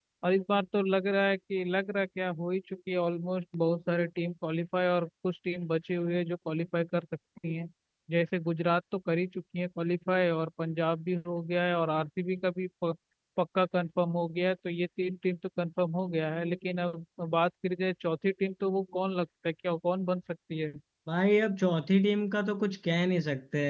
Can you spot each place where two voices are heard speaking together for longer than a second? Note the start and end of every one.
none

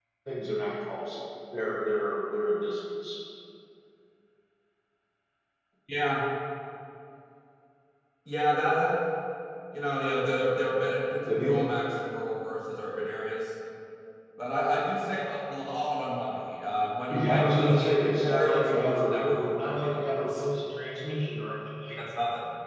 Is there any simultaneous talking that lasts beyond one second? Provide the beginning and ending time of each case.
17.1-20.4

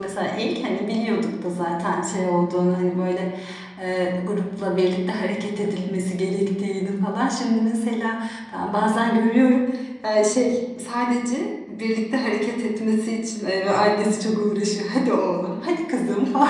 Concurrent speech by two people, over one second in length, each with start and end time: none

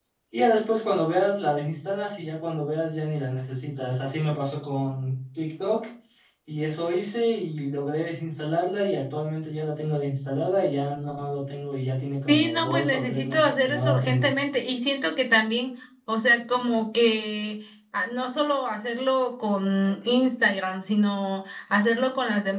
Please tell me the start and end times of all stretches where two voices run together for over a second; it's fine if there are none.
12.3-14.3

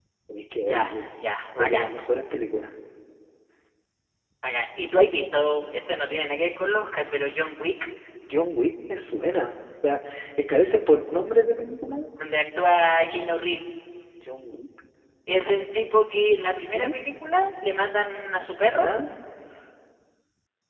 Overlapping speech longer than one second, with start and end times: none

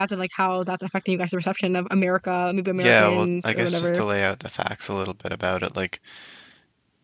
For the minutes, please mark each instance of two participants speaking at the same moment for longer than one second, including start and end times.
2.8-4.0

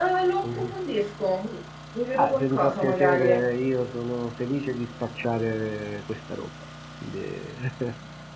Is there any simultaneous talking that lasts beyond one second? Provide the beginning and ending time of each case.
2.1-3.4

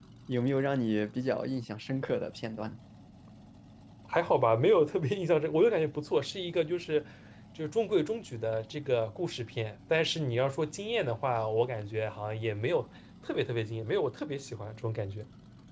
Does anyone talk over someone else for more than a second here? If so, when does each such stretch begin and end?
none

